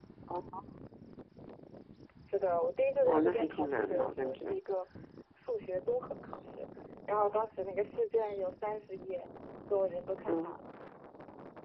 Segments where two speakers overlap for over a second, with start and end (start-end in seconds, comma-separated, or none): 3.0-4.6